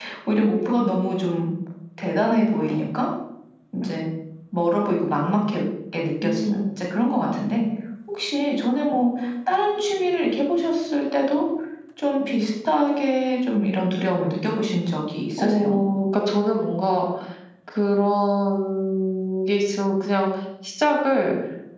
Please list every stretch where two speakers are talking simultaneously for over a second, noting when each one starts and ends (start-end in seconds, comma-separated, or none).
none